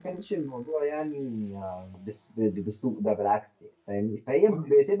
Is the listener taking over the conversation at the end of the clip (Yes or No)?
No